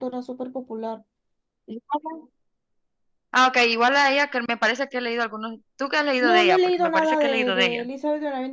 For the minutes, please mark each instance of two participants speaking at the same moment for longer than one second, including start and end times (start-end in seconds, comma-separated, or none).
6.2-7.9